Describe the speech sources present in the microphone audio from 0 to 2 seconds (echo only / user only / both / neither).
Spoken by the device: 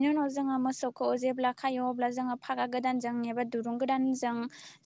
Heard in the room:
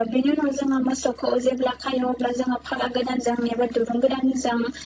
echo only